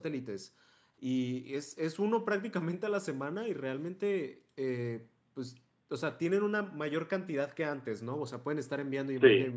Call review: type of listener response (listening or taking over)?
listening